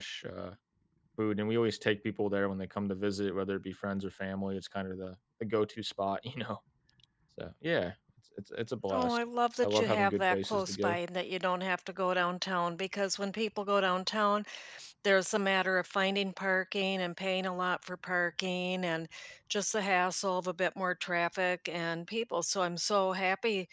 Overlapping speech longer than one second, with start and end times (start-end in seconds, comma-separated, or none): 9.6-11.0